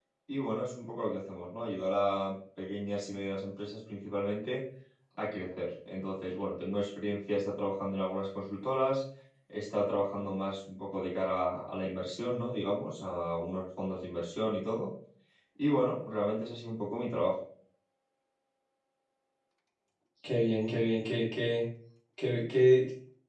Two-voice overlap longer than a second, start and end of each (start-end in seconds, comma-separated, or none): none